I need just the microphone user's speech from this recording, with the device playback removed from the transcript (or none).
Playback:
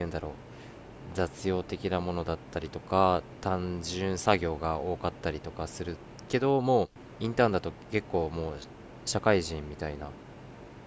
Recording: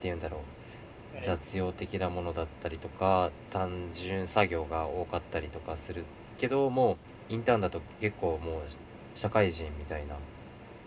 はい。